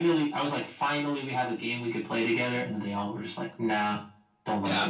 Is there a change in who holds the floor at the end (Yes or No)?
Yes